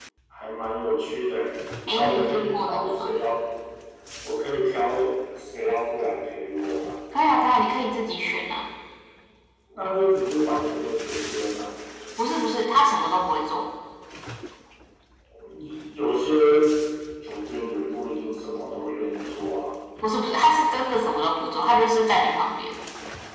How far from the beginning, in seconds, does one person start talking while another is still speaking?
1.9 s

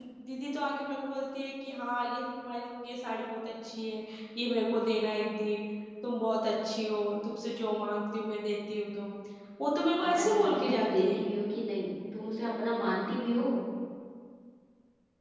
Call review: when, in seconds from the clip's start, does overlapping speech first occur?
10.0 s

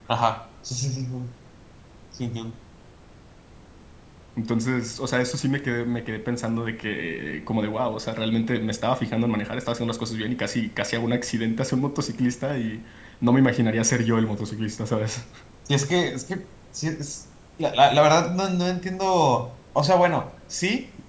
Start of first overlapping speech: none

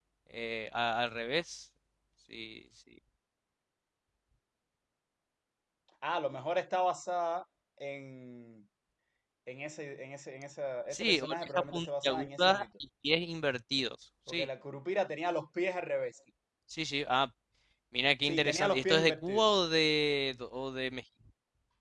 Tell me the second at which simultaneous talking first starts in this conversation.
10.9 s

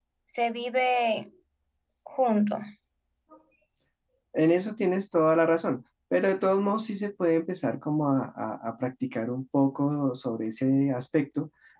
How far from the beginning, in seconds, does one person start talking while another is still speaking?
none

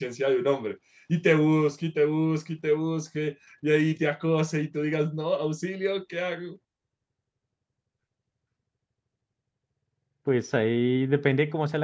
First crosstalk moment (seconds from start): none

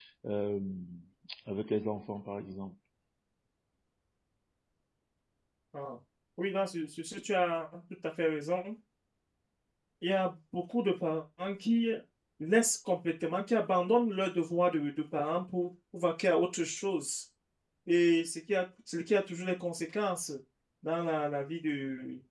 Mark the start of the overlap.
none

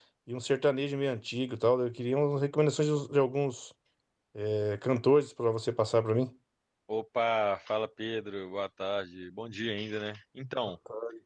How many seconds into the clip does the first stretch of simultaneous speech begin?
none

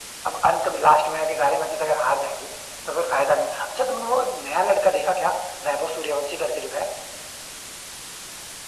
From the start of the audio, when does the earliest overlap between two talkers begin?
none

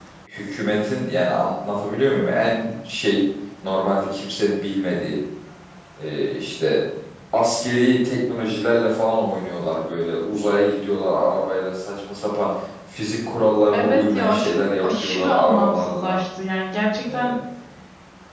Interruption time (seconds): 13.7 s

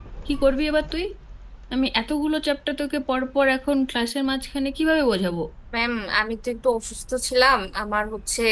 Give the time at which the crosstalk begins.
none

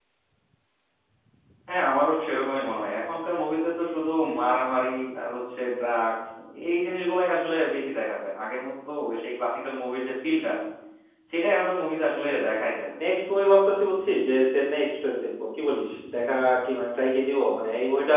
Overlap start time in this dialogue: none

